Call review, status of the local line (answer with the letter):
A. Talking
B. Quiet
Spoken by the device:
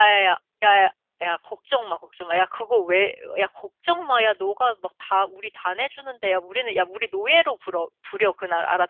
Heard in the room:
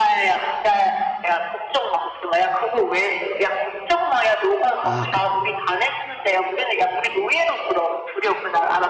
A